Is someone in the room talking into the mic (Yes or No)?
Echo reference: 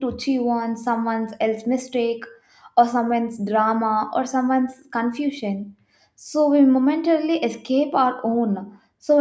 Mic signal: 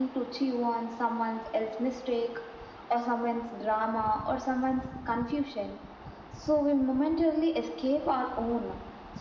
No